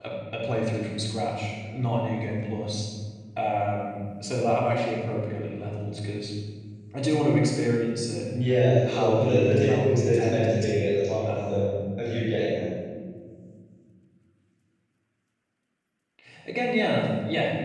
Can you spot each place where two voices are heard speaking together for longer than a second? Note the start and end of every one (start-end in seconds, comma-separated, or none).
8.9-10.7